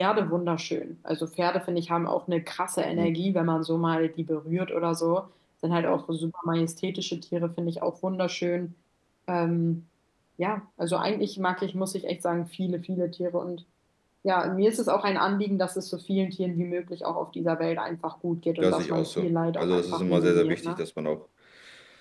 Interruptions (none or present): present